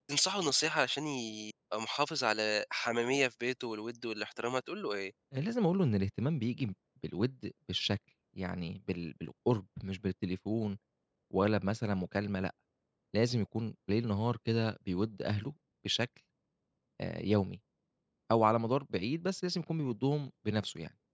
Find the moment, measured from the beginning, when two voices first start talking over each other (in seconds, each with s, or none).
none